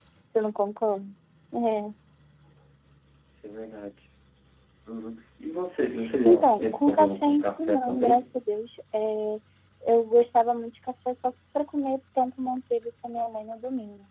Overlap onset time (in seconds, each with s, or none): 6.2 s